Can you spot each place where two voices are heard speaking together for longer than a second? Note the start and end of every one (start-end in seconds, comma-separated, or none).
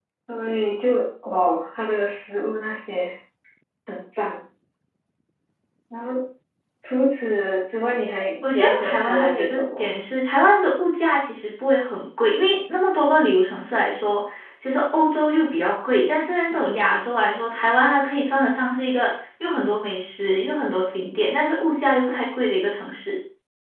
8.4-9.9